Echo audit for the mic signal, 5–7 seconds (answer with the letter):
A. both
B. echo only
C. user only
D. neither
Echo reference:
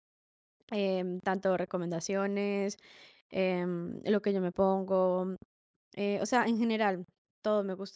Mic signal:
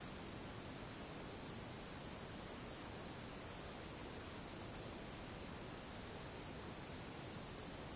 D